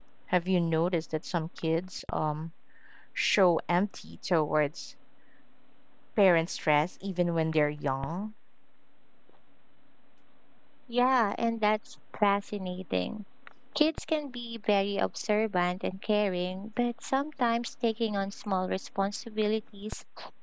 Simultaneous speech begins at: none

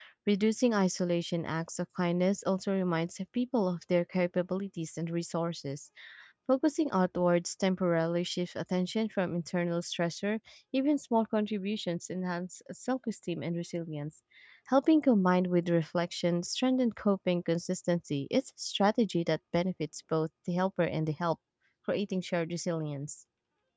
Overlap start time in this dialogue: none

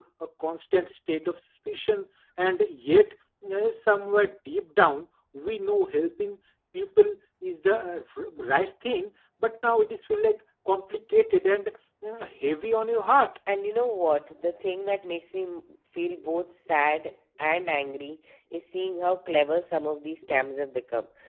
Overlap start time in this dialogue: none

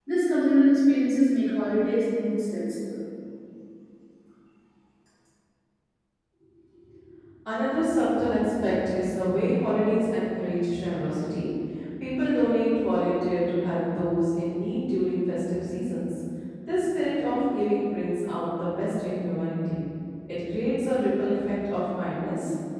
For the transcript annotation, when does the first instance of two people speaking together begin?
none

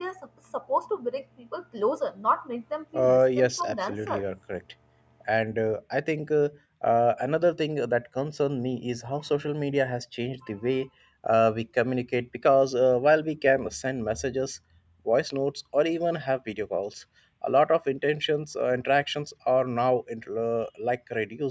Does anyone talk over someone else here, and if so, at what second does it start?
2.9 s

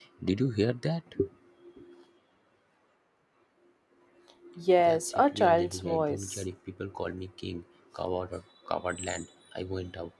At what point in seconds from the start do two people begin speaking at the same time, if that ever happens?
4.8 s

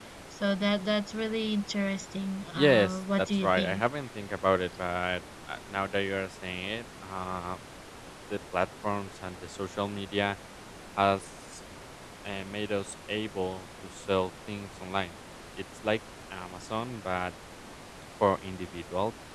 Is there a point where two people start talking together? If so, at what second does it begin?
2.6 s

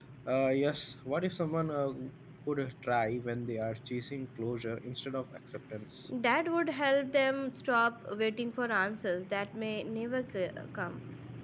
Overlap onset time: none

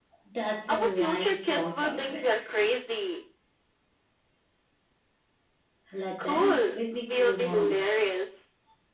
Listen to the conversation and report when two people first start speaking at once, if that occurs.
0.7 s

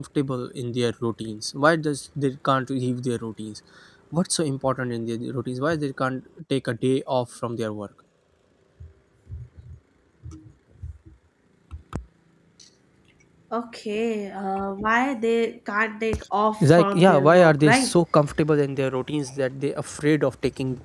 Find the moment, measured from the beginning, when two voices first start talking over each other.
16.6 s

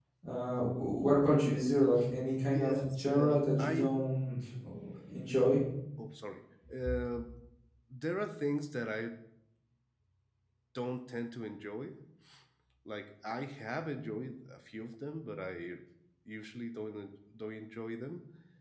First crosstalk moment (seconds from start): 2.5 s

